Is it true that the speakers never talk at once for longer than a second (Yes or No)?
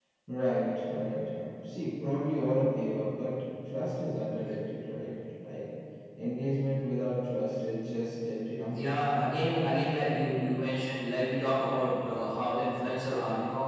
Yes